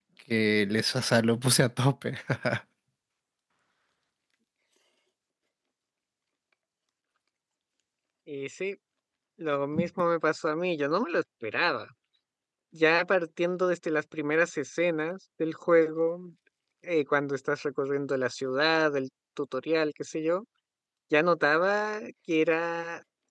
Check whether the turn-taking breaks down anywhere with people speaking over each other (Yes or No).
No